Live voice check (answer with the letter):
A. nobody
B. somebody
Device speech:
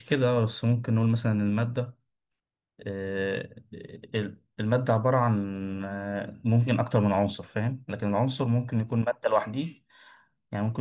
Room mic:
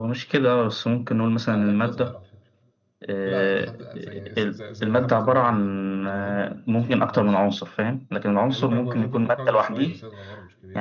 B